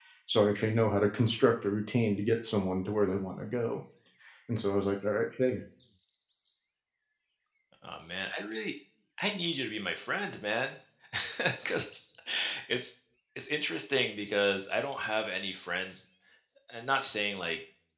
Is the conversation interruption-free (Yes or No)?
Yes